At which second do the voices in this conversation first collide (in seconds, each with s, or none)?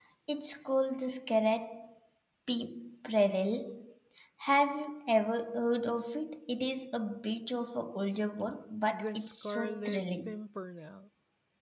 8.9 s